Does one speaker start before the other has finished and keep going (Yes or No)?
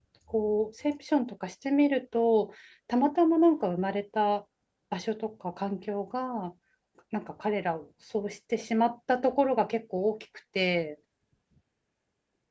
No